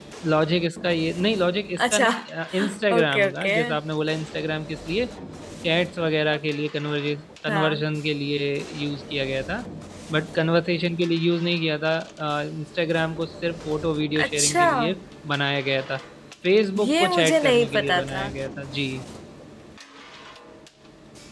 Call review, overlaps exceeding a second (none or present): present